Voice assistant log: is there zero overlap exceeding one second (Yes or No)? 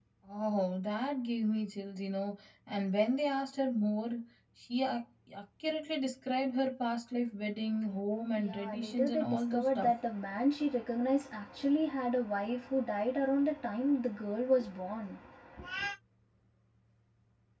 No